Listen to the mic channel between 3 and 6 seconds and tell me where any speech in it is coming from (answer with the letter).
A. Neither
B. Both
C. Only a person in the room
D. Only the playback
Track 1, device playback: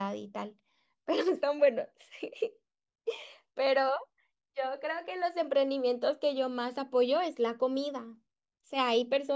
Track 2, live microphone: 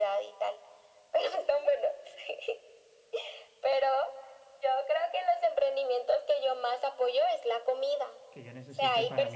D